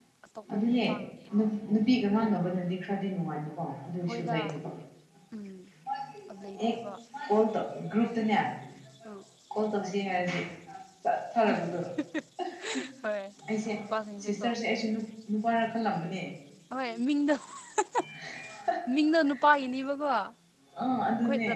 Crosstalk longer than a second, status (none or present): none